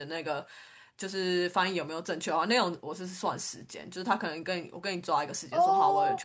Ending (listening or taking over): listening